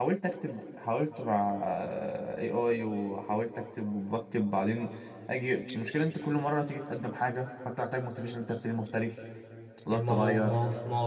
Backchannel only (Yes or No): No